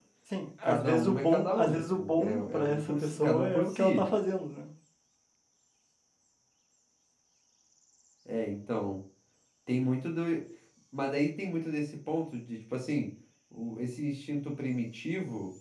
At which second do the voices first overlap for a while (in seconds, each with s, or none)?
0.6 s